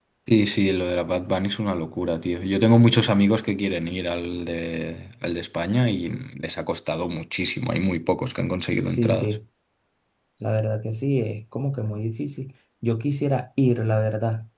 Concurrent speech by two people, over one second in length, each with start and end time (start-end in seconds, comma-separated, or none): none